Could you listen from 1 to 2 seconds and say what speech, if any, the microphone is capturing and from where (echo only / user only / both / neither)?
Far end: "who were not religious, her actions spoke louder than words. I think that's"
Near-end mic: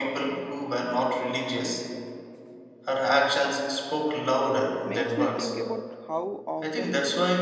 echo only